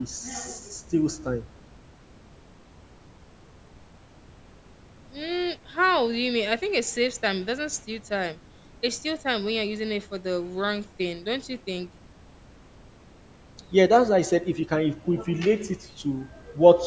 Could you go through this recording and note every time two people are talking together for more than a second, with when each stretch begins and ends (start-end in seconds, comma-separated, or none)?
none